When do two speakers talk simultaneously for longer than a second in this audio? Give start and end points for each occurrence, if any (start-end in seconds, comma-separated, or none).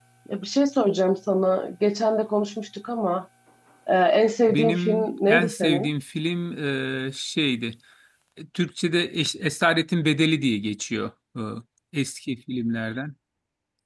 4.5-5.9